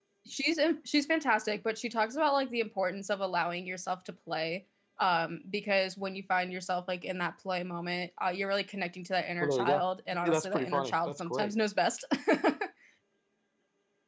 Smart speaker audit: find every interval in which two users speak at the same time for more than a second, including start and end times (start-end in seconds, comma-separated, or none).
10.3-11.5